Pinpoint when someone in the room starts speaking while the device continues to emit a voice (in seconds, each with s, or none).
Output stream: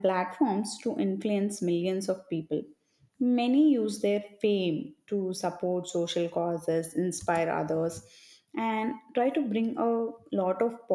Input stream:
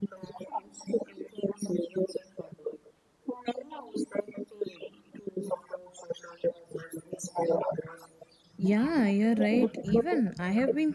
8.6 s